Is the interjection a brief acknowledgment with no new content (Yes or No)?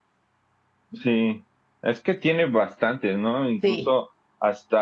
Yes